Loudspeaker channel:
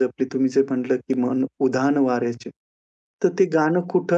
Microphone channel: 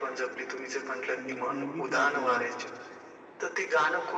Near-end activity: present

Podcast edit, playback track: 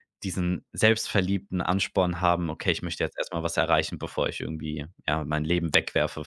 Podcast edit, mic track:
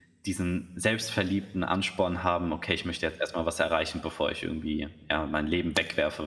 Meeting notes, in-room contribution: none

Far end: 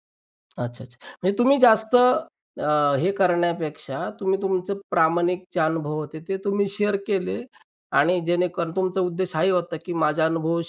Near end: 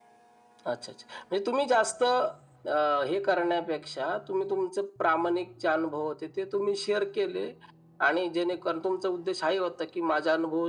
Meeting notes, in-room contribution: none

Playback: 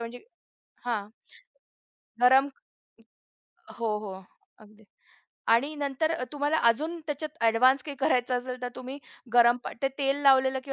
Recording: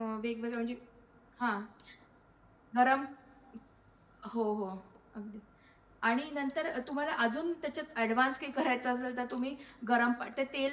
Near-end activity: none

